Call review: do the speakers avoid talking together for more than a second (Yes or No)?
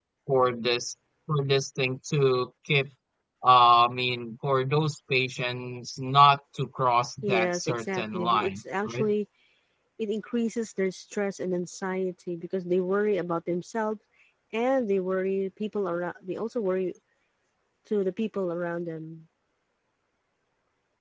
No